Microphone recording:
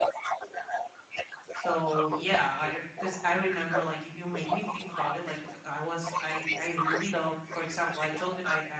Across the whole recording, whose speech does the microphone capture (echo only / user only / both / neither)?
both